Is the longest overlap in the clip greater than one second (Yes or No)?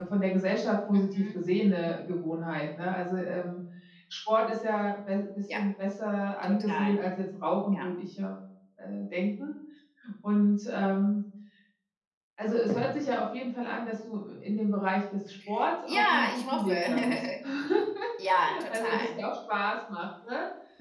Yes